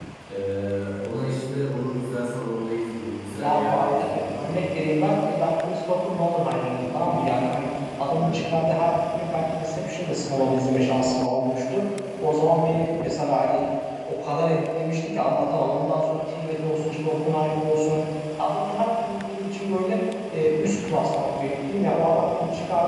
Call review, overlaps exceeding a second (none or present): present